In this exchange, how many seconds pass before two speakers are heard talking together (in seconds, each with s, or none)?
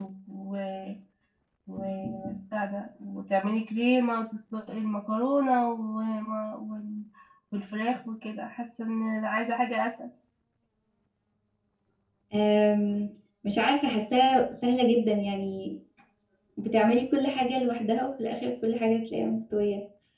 none